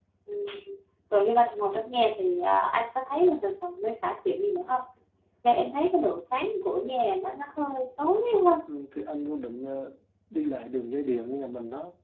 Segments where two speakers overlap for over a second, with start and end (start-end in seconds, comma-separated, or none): none